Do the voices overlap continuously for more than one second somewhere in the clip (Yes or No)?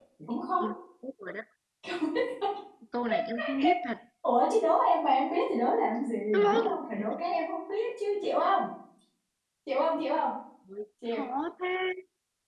No